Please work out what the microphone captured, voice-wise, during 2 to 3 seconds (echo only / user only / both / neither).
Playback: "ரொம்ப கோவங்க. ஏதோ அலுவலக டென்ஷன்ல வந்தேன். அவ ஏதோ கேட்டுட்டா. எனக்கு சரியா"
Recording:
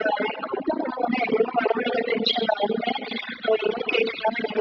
echo only